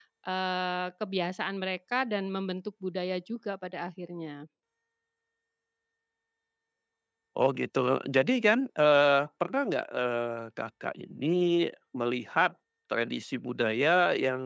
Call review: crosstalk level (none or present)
none